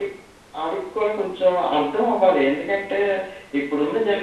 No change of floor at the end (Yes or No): Yes